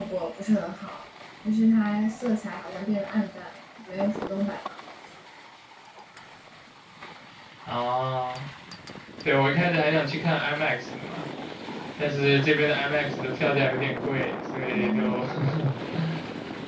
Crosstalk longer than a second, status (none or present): none